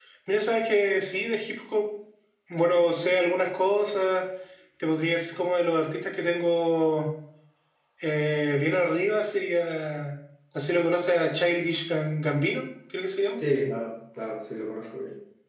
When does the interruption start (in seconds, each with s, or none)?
none